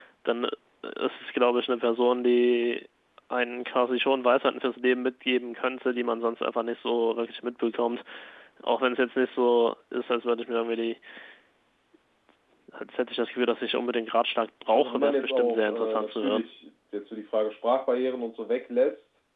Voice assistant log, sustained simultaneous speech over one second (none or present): present